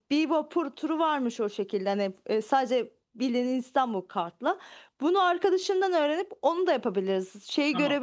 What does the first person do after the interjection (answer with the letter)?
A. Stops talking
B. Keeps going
B